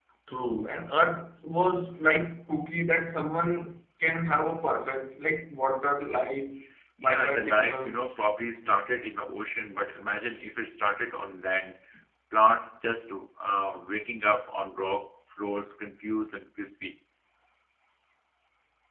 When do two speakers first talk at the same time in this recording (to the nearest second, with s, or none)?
7 s